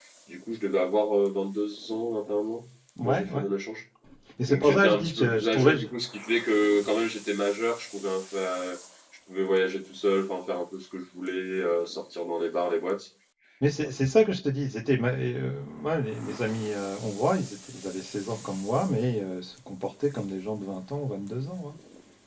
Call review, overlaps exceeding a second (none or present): present